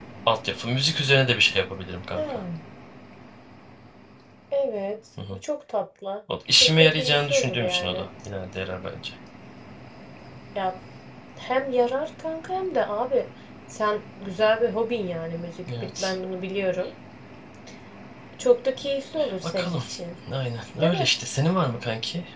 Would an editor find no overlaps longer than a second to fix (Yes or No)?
No